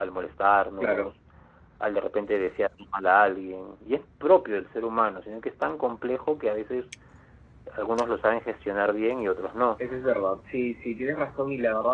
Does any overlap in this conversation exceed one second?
No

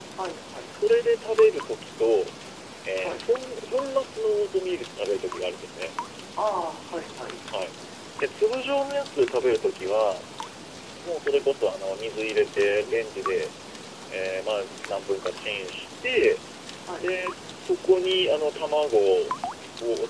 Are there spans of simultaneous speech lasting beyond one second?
No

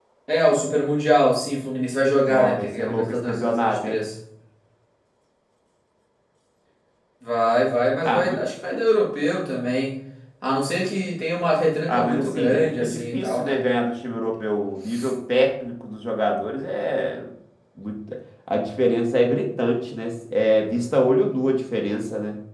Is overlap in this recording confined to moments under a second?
No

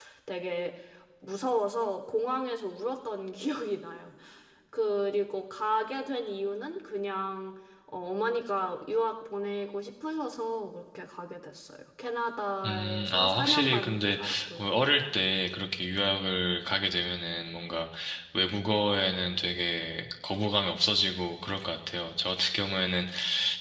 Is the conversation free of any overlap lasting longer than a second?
No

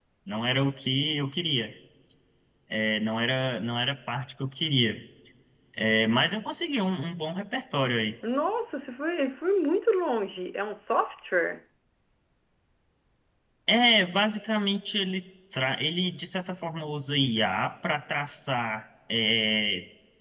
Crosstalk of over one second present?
No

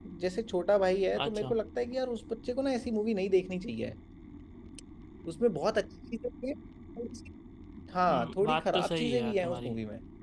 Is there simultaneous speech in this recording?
Yes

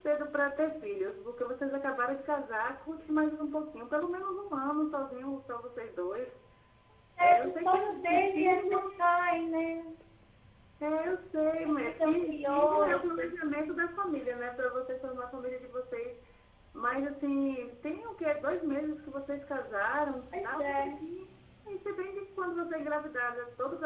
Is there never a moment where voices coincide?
No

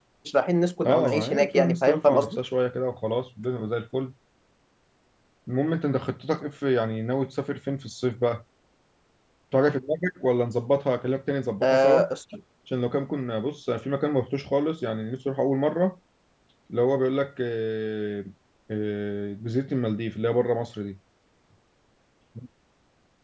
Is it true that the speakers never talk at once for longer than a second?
No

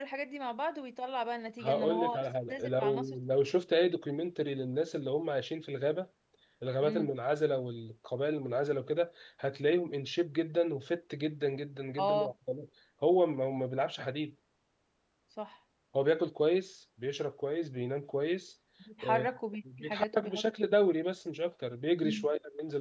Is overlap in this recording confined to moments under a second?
No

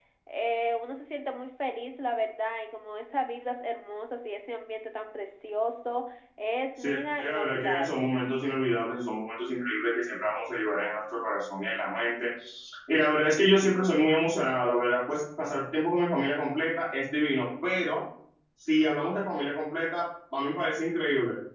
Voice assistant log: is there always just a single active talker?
No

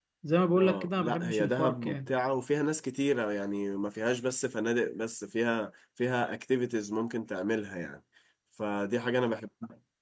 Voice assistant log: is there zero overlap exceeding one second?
No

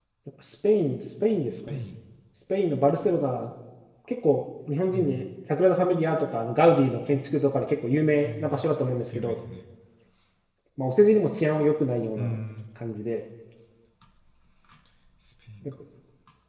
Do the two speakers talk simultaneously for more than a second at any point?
No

